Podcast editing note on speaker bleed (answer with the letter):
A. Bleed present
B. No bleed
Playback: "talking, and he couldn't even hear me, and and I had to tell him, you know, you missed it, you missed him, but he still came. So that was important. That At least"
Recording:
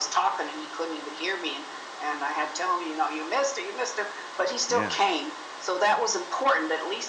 A